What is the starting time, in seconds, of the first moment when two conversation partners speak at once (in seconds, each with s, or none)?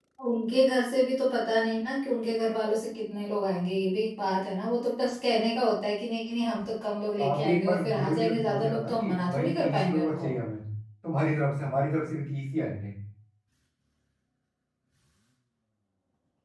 7.2 s